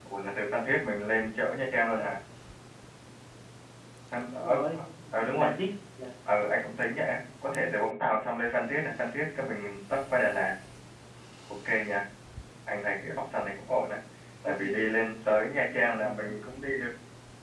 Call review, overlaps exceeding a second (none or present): none